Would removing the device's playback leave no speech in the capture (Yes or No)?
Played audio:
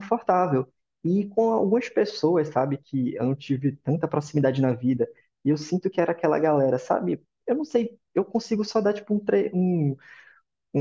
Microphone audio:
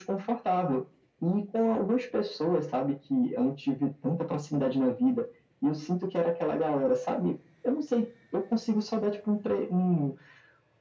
Yes